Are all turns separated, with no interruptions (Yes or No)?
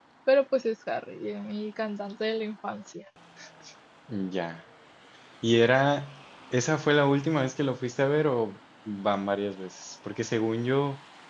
Yes